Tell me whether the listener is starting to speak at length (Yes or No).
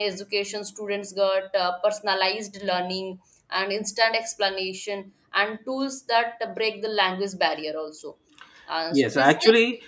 Yes